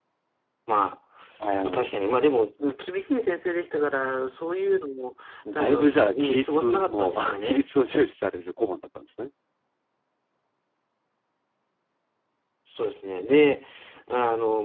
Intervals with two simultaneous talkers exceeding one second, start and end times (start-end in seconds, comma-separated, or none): 5.5-7.6